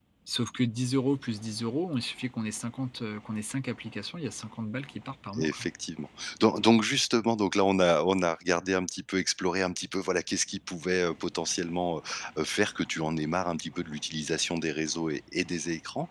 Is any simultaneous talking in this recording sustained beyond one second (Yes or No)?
No